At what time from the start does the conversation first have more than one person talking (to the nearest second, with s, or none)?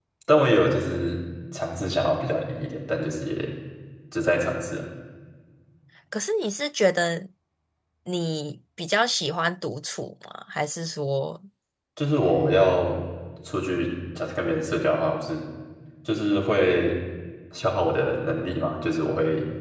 none